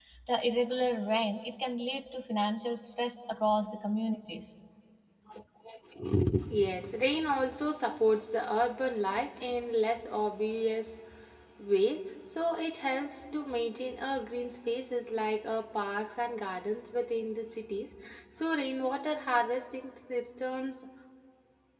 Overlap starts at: none

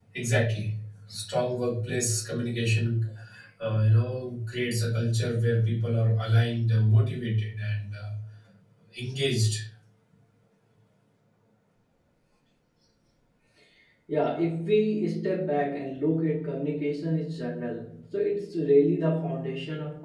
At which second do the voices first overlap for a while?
none

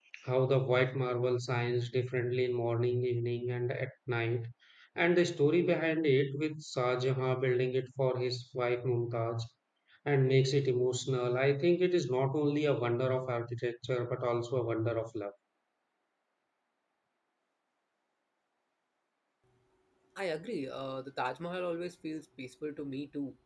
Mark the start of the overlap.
none

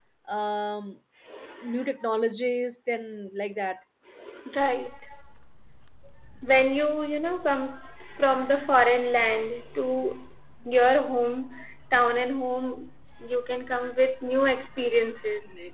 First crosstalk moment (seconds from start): none

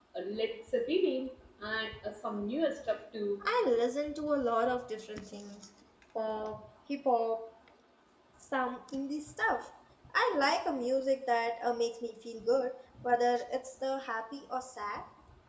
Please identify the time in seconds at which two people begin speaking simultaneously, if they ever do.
none

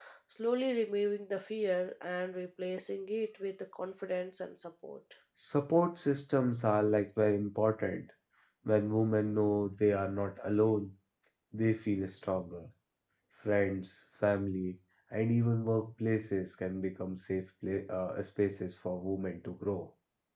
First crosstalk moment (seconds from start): none

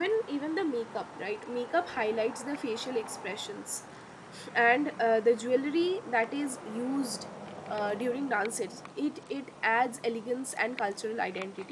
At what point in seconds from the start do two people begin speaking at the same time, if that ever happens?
none

